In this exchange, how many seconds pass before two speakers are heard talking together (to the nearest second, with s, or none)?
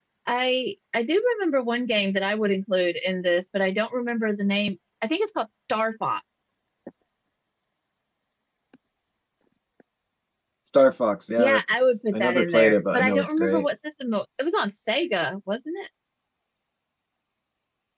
11 s